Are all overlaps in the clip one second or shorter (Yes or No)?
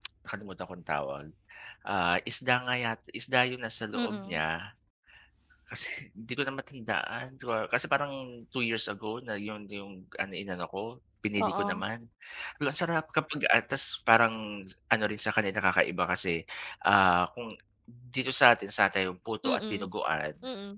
Yes